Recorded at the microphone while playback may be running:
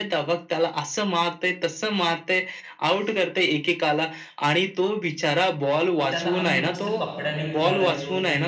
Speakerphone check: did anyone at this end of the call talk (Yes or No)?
Yes